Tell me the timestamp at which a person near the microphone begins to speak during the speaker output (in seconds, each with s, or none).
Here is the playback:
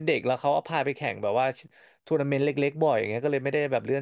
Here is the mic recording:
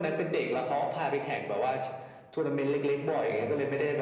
none